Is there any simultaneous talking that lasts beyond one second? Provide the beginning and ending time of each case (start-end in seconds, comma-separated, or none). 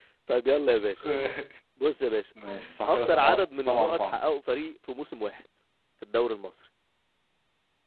2.9-4.2